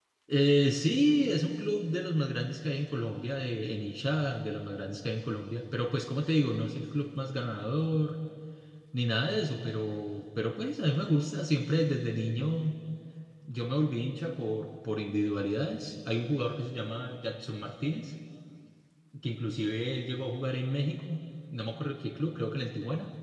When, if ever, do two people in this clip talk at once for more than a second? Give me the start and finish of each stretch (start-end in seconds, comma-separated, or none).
none